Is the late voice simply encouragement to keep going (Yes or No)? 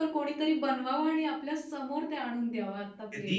No